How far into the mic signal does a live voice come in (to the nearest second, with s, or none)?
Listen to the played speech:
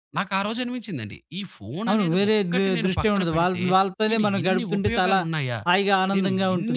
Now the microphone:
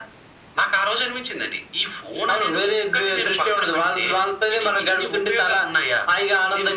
none